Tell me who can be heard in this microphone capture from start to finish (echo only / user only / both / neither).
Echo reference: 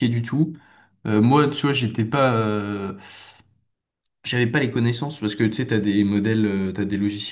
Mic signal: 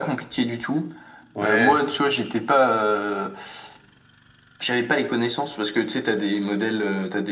both